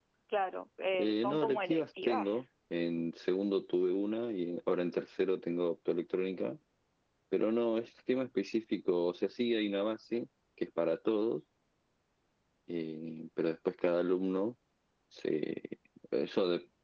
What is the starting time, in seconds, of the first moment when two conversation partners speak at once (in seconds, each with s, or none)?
0.9 s